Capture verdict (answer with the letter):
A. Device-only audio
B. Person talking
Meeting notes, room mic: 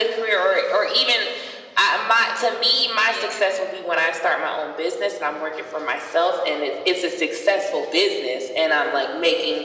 B